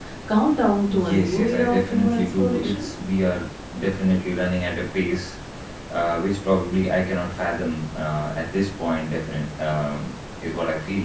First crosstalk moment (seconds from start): 0.9 s

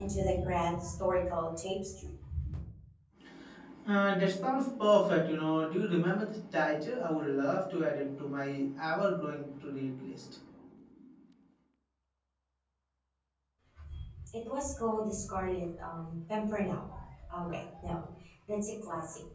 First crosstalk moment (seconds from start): none

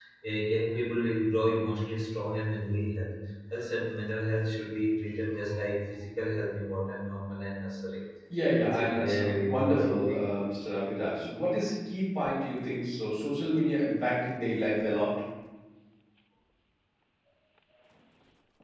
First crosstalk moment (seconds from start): 8.6 s

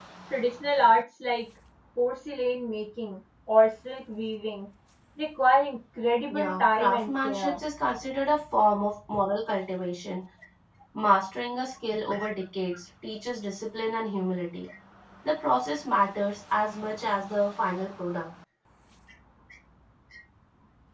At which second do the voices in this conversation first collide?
6.3 s

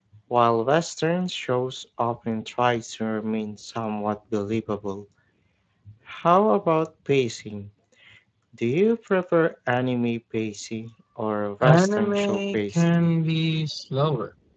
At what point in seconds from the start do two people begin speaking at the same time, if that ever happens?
11.6 s

